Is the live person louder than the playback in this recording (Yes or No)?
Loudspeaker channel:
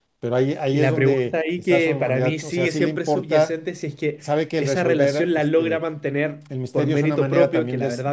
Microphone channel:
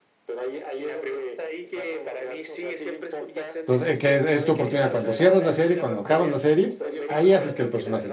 Yes